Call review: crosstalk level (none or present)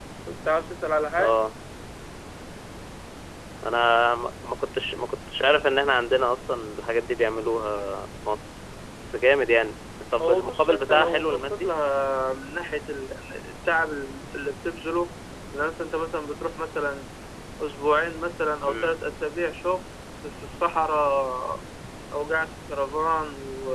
present